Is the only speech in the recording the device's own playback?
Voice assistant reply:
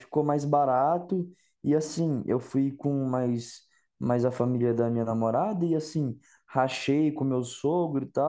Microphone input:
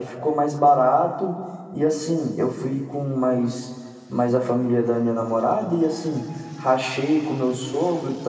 Yes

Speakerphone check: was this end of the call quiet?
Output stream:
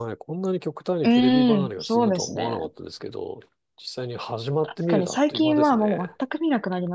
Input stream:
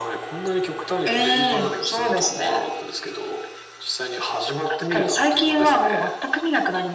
Yes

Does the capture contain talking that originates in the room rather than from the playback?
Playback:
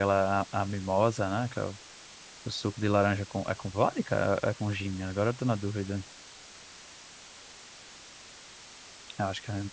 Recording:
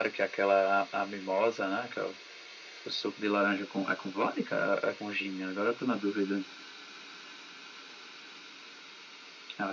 No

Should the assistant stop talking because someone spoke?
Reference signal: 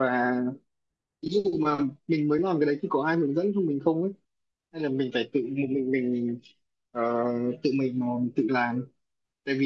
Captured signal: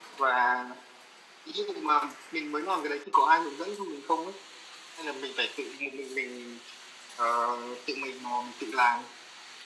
No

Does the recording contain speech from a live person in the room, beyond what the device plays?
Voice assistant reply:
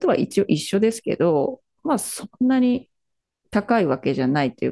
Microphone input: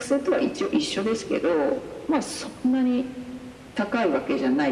No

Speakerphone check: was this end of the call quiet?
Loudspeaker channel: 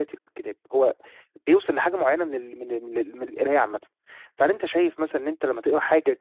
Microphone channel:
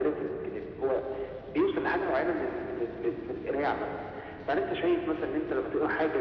Yes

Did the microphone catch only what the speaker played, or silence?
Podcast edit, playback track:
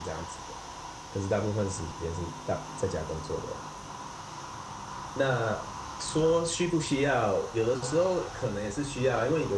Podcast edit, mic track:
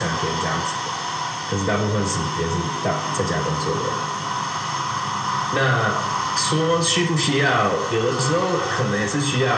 Yes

